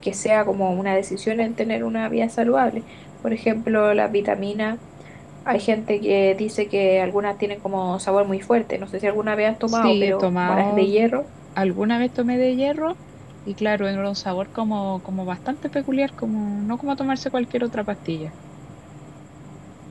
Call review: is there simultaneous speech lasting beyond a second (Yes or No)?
Yes